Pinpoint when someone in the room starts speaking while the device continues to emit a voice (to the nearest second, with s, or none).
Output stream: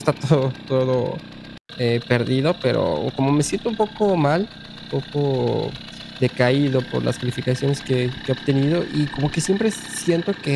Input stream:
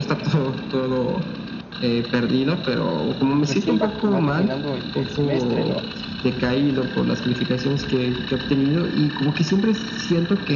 3 s